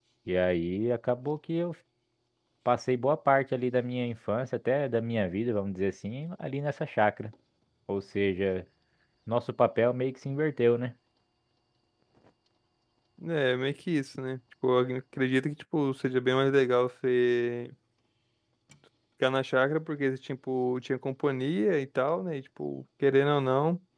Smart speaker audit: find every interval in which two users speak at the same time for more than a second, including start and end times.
none

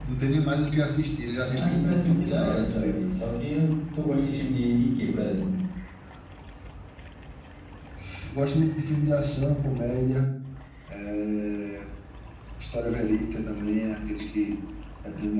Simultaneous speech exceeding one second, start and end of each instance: 1.6-3.0

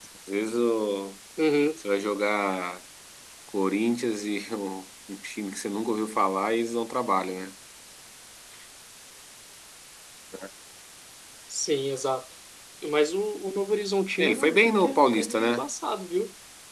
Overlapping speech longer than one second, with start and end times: 14.2-15.7

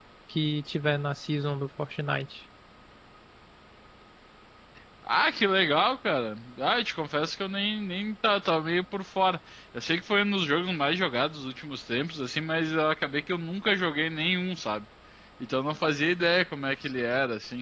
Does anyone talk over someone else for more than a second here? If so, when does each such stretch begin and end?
none

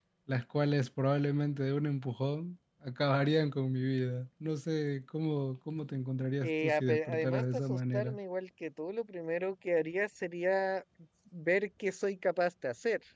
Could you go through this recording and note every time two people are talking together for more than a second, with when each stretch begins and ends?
6.4-8.2

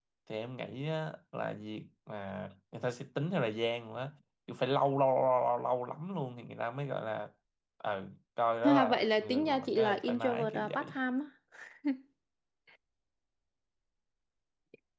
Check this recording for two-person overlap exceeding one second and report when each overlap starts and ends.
8.6-11.0

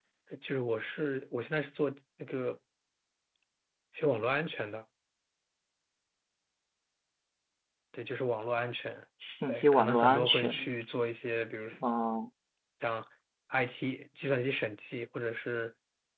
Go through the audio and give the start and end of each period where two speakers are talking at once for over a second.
9.5-10.7

